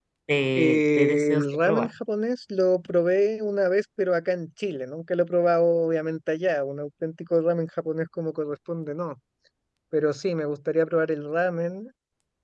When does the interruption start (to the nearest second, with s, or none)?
1 s